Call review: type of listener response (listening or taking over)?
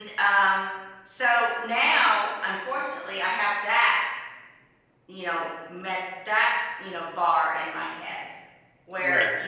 listening